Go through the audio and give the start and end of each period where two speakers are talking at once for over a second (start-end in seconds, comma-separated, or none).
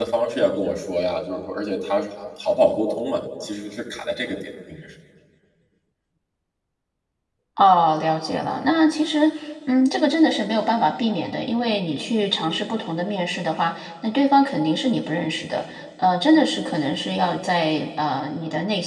none